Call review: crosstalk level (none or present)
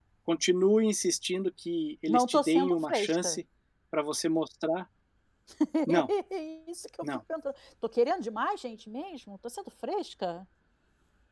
present